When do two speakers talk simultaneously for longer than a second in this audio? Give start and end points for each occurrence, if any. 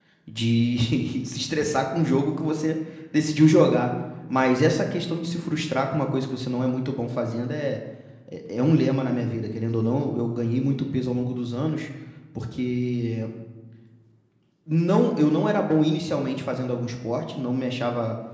none

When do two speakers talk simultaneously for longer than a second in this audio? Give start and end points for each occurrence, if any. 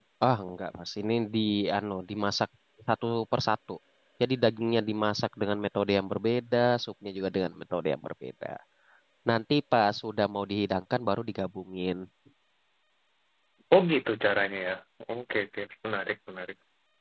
none

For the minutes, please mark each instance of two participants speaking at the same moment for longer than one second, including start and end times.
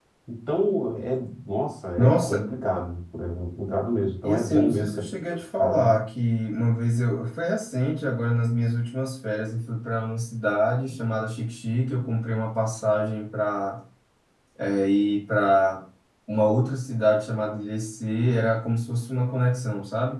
4.2-6.0

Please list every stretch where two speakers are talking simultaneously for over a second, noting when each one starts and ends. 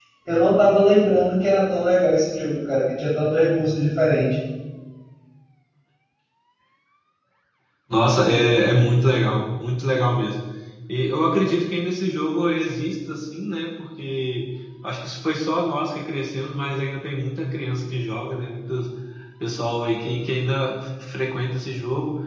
none

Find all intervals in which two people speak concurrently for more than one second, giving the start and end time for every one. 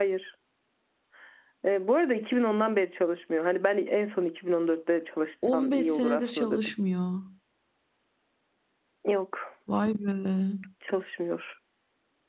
5.5-6.7

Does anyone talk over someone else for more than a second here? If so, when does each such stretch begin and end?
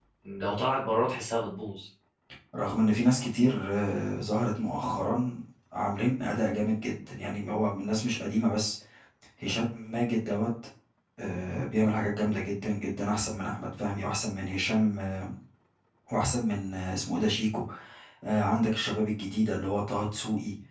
none

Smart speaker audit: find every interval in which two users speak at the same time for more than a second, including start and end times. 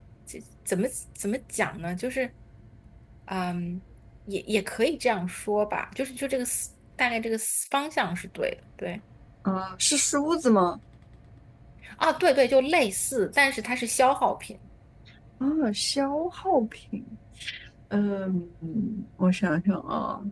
none

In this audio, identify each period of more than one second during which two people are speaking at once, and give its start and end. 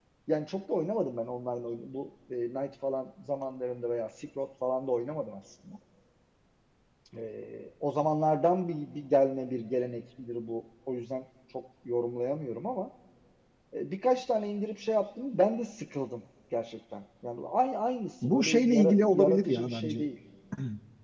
18.2-20.1

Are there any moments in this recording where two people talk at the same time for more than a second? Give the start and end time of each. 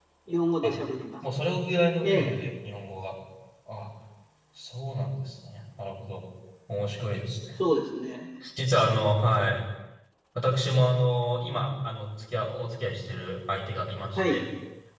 none

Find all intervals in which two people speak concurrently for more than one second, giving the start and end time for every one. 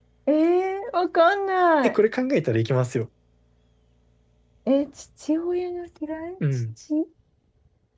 none

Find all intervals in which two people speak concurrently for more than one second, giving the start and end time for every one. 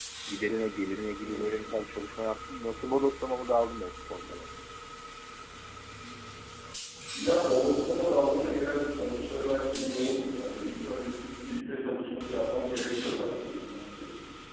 none

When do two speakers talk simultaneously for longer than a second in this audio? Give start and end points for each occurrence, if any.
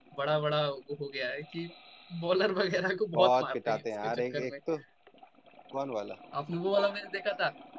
3.1-4.5

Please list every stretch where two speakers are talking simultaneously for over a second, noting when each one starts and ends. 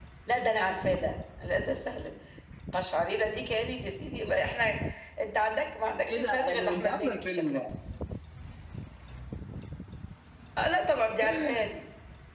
6.1-7.6

